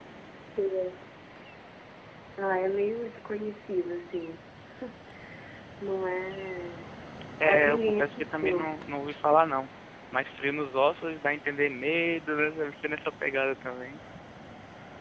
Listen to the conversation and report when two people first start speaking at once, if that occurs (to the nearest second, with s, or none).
7 s